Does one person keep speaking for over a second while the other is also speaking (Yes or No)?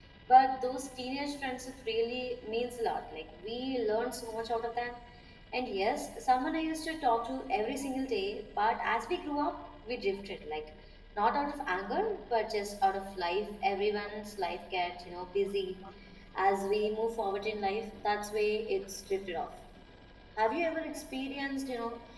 No